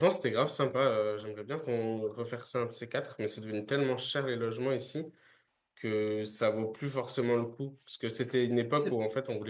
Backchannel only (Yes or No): Yes